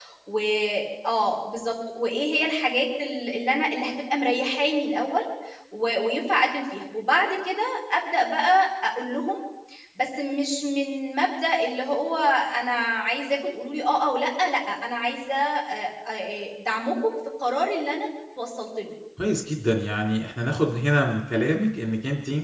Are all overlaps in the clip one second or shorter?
Yes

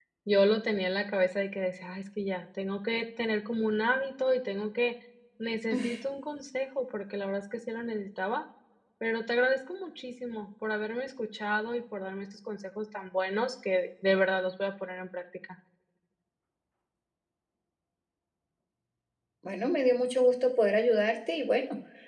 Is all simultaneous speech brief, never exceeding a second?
Yes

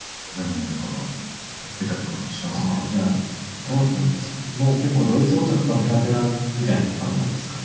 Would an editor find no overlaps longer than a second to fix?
Yes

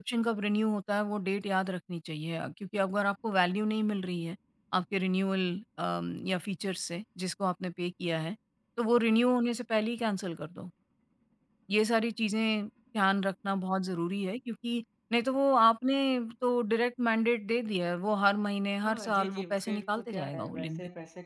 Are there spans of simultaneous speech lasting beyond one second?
Yes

